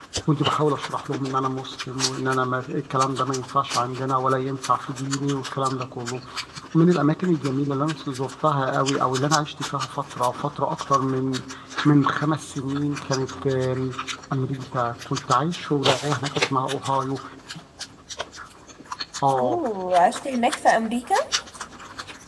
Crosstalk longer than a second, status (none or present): none